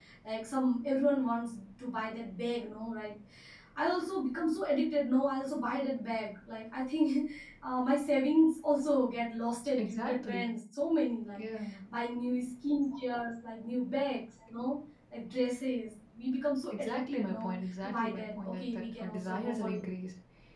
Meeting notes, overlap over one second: present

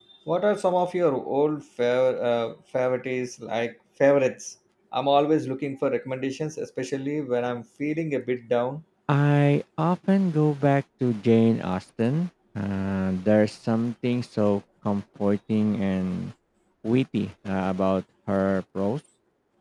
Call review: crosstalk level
none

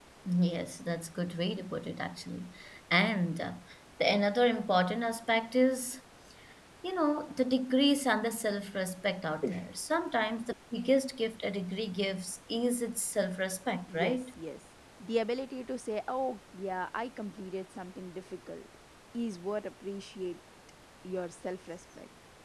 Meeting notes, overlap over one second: none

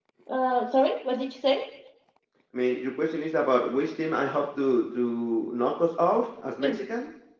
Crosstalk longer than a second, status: none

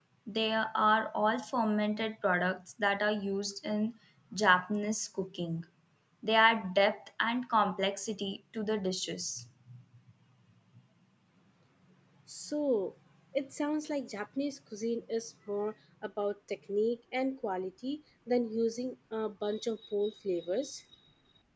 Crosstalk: none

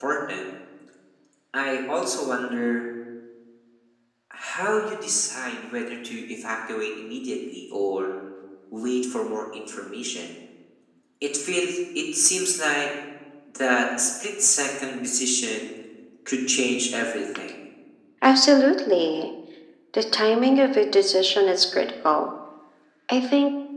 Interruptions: none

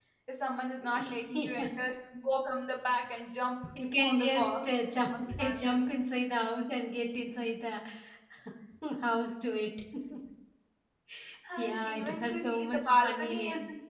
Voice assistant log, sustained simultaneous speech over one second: present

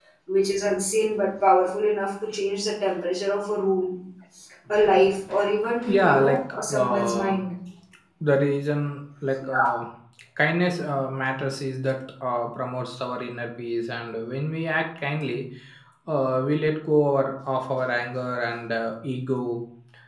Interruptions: present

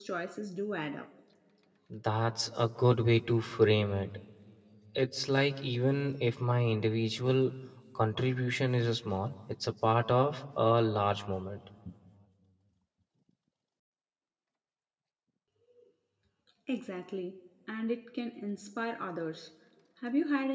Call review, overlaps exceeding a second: none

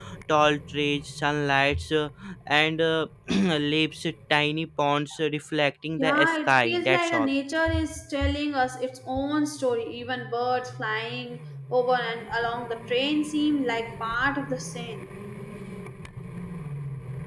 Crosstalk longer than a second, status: present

